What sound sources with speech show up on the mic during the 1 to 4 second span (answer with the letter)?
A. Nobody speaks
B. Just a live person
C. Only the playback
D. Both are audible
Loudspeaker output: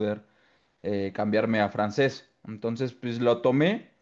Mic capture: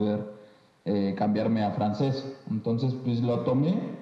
C